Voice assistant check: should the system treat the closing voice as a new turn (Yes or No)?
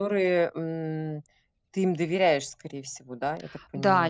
Yes